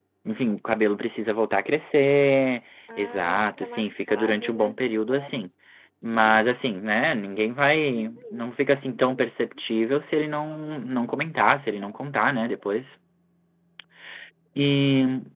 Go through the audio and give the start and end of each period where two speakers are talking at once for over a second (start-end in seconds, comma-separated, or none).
3.0-4.8